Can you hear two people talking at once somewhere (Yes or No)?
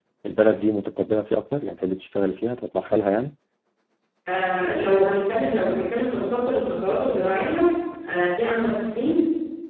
No